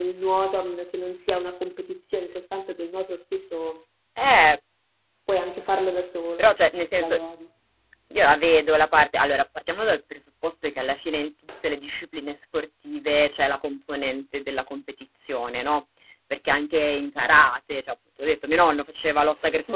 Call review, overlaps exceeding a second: none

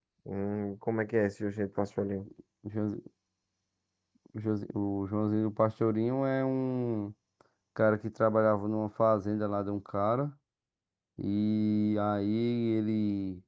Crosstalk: none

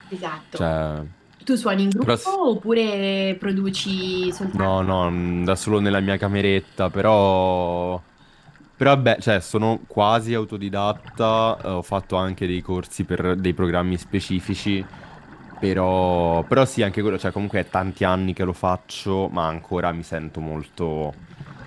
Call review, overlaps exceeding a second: none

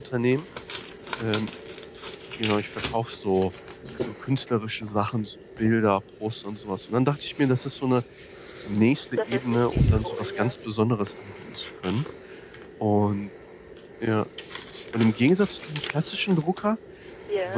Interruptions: present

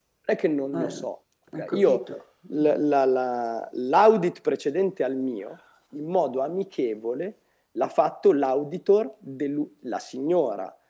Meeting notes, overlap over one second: none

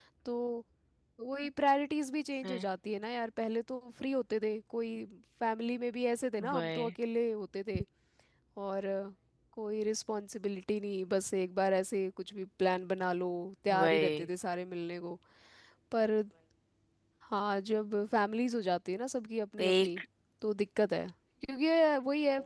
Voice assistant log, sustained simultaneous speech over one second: none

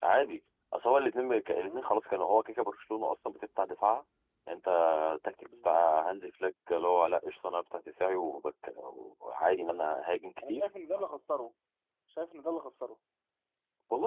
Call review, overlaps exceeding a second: none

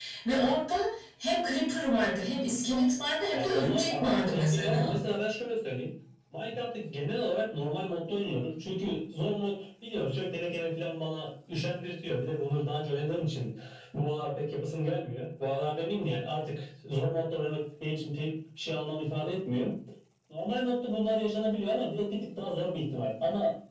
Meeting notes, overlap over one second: present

